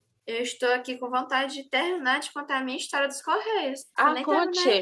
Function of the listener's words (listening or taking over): taking over